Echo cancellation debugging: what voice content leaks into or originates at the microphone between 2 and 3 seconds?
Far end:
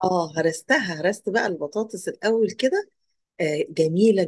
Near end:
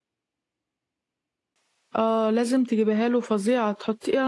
user only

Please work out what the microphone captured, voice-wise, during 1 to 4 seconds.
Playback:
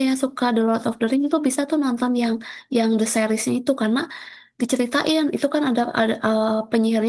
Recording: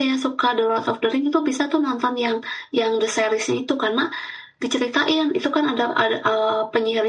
echo only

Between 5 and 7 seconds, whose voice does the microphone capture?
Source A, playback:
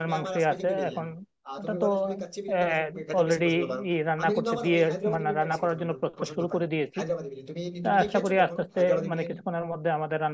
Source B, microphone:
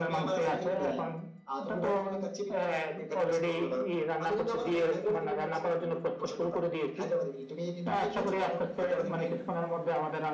echo only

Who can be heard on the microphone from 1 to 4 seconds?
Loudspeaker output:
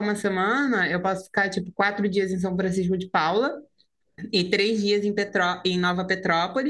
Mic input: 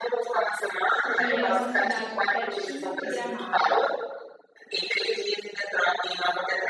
both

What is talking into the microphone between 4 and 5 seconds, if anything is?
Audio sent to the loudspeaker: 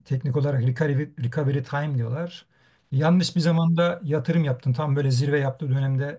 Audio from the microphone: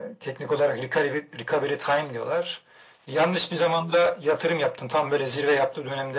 echo only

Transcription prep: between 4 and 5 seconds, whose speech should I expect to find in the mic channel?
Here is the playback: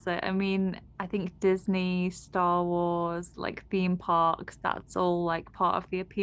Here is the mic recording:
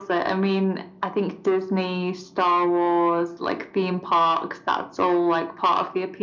echo only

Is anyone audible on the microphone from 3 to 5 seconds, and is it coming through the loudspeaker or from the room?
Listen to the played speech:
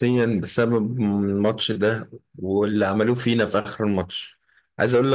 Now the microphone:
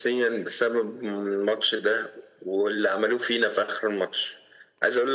echo only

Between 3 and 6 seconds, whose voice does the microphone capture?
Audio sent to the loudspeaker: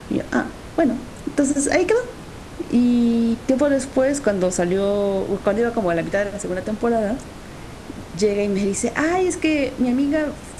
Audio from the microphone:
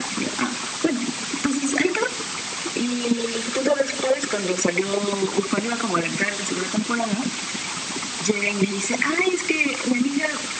echo only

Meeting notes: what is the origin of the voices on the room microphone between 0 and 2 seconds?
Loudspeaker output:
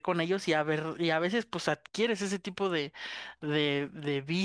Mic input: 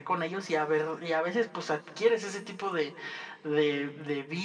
echo only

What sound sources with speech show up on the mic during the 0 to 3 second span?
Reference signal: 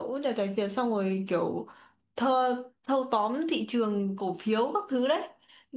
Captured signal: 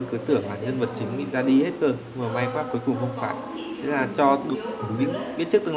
both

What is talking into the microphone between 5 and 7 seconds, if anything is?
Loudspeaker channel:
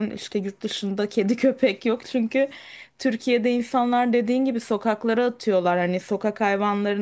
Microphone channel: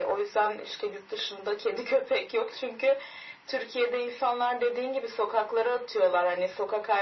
echo only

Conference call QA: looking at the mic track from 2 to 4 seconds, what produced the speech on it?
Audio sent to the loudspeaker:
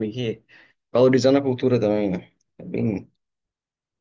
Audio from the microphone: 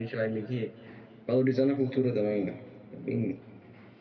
echo only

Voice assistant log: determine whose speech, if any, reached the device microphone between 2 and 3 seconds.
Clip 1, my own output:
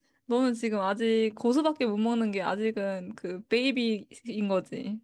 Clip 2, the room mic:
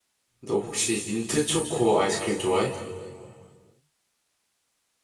user only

